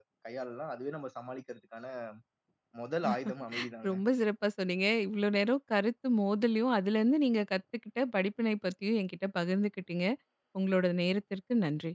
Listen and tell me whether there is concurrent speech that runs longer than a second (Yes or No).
No